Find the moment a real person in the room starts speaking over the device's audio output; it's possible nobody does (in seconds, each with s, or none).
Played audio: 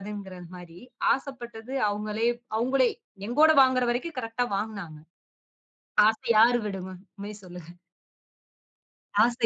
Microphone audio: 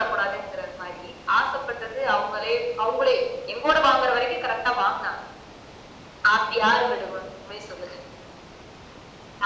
none